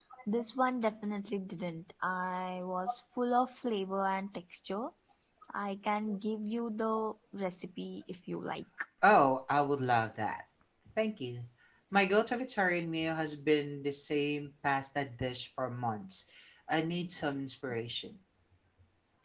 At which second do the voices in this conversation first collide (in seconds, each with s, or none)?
none